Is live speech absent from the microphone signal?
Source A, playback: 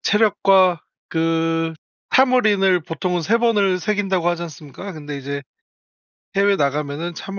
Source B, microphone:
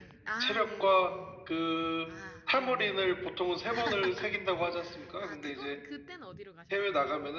No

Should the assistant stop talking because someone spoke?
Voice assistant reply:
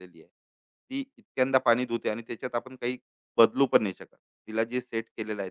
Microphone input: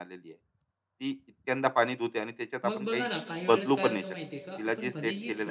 Yes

